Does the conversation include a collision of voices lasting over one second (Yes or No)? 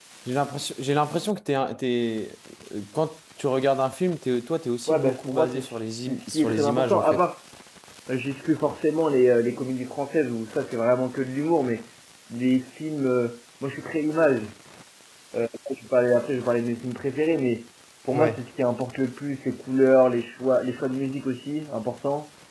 Yes